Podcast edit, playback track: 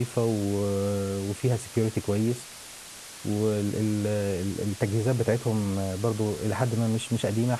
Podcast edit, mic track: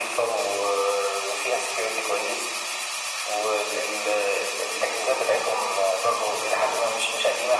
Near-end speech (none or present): none